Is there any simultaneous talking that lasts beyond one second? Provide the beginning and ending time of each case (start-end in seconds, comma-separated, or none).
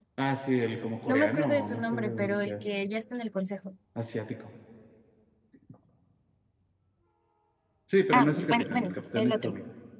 1.1-2.5, 8.1-9.5